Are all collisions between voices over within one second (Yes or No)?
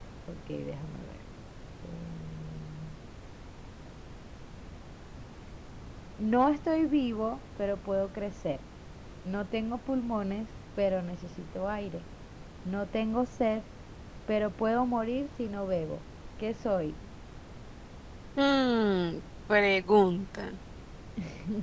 Yes